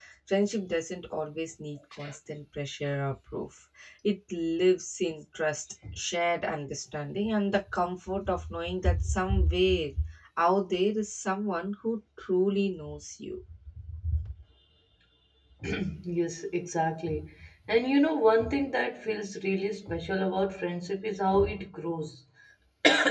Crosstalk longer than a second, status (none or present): none